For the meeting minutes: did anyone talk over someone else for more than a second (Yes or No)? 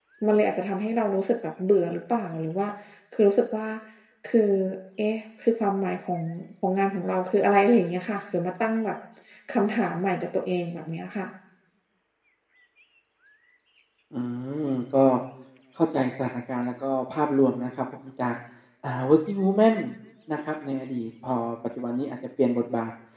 No